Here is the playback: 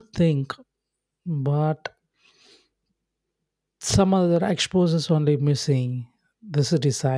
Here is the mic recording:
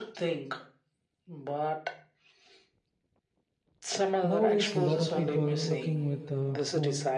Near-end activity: present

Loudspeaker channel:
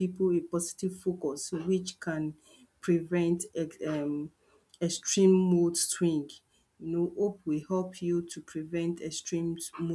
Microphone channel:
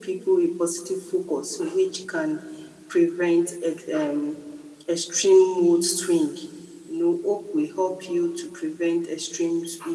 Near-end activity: none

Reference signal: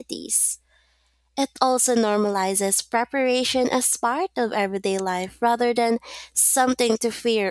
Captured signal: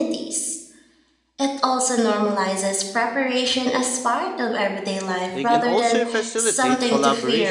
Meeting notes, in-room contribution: present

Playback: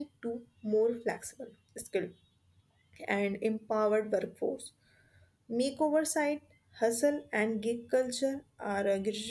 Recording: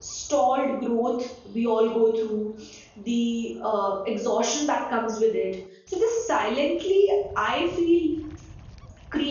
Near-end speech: present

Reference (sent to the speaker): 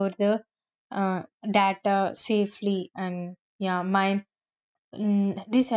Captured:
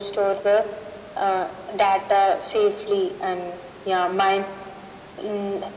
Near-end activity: none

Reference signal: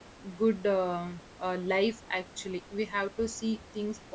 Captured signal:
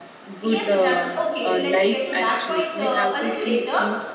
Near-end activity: present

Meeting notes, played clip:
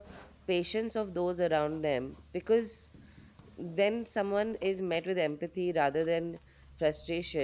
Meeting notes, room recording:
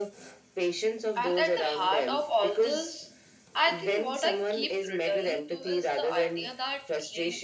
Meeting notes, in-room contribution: present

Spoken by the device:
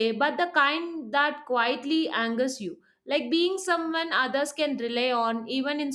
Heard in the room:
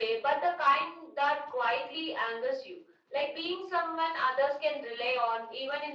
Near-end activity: none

